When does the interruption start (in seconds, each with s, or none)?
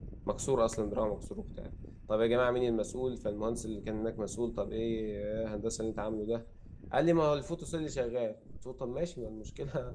none